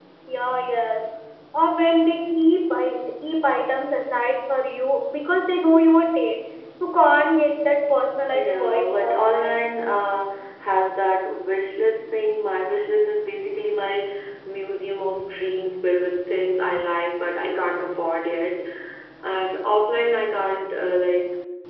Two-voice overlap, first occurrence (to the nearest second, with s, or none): 8 s